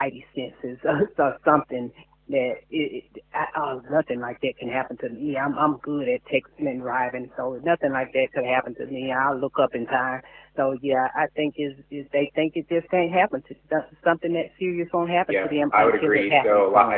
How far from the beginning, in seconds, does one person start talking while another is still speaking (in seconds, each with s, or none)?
15.3 s